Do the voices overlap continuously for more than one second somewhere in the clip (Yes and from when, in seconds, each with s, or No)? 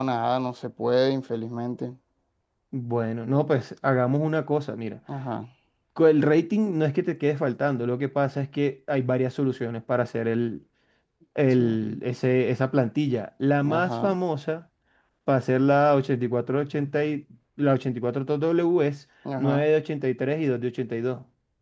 No